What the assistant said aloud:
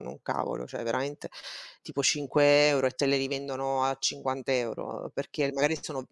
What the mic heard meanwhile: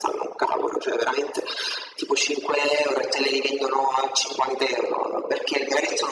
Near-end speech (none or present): none